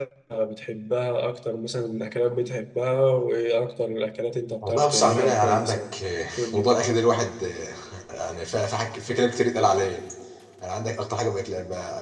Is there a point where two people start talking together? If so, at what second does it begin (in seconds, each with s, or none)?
4.6 s